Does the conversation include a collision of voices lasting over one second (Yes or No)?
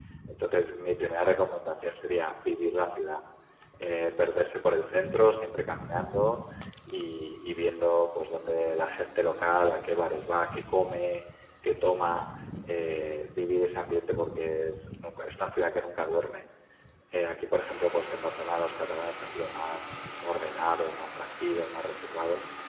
No